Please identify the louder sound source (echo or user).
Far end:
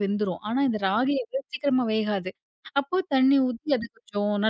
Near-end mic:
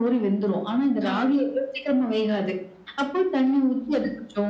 echo